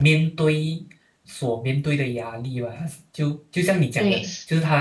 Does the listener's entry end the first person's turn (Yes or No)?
No